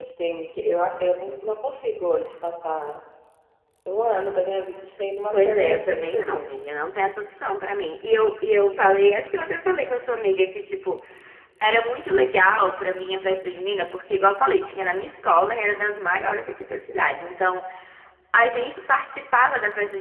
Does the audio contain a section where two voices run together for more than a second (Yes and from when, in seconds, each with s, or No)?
Yes, from 5.3 s